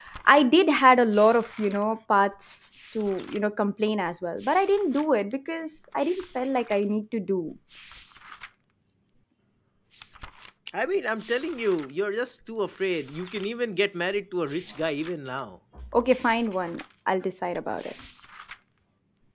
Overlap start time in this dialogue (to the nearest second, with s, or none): none